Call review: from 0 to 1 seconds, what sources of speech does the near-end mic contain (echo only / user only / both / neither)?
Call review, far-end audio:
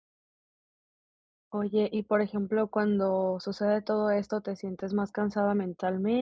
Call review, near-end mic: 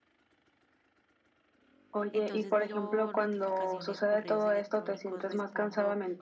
neither